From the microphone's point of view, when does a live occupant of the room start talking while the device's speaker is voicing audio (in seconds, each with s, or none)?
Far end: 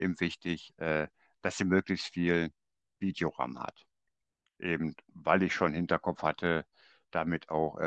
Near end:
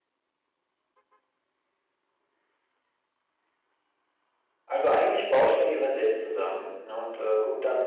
4.6 s